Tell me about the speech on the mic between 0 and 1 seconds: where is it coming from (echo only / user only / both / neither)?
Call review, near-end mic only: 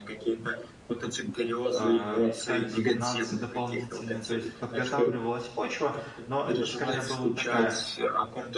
echo only